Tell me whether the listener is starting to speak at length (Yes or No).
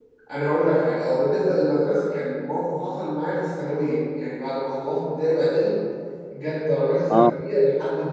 No